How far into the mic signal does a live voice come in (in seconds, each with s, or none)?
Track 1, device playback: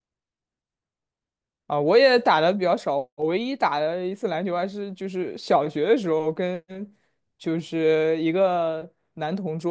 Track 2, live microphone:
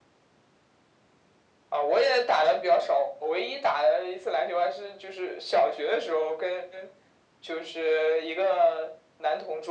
none